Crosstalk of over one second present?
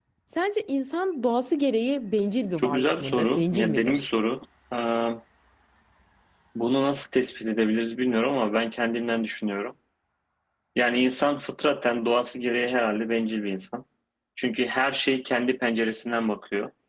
Yes, from 2.6 s

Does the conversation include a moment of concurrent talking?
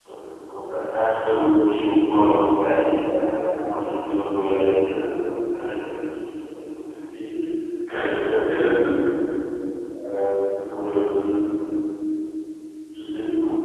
No

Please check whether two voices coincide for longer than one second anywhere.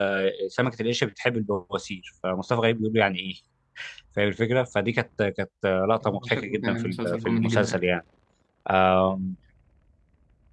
Yes, from 6.1 s

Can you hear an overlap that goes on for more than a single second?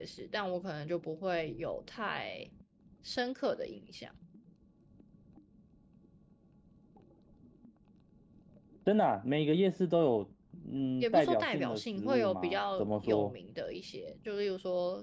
Yes, from 11.0 s

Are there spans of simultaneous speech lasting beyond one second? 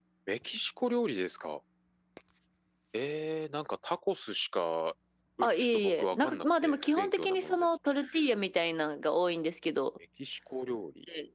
Yes, from 5.4 s

